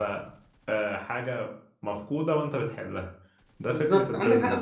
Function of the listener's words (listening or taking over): taking over